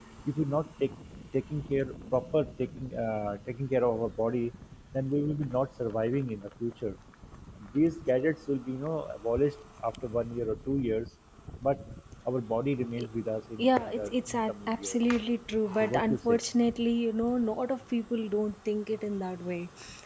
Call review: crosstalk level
present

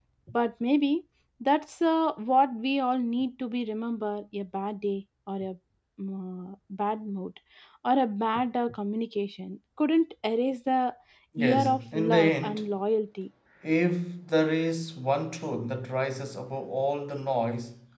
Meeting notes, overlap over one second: present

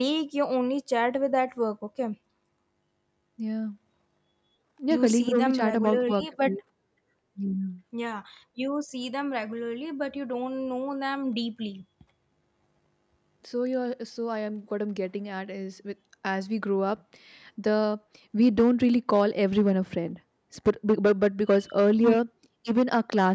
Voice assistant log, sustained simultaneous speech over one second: present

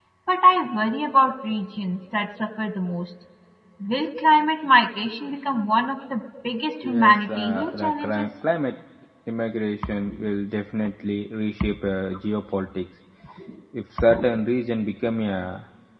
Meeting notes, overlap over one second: present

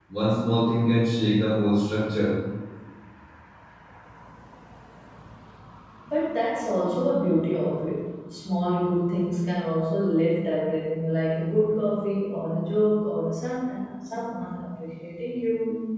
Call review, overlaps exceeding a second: none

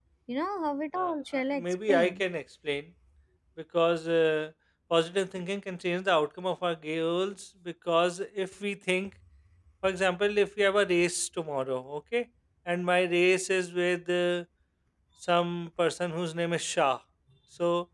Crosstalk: present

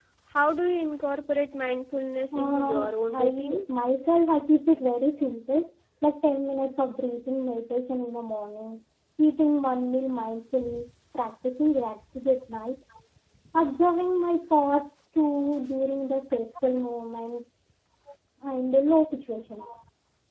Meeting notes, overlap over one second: present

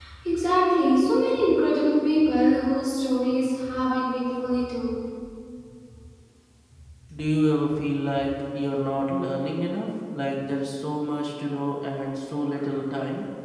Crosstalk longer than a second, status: none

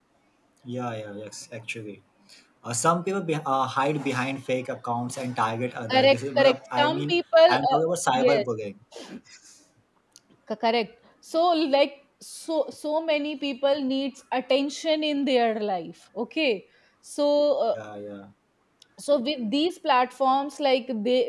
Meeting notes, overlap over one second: present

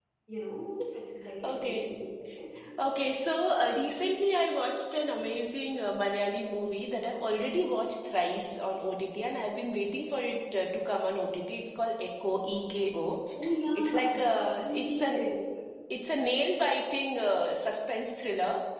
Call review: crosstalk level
present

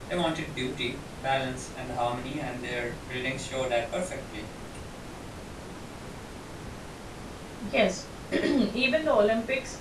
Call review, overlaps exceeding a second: none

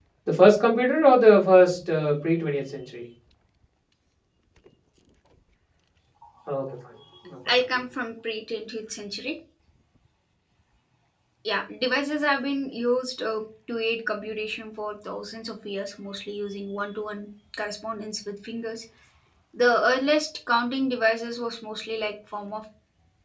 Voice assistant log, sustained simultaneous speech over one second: none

